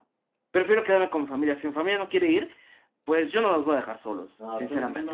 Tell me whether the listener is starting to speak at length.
Yes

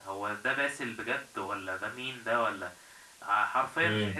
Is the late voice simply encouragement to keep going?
No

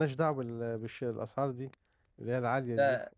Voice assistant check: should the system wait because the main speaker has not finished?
No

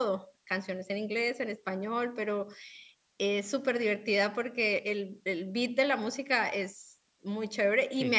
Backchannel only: Yes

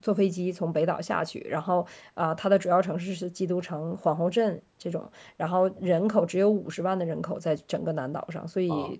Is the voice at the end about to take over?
Yes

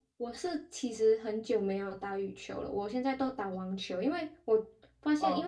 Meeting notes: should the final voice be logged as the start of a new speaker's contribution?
No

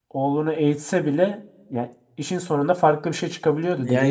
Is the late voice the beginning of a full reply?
Yes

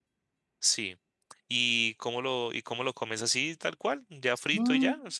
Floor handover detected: Yes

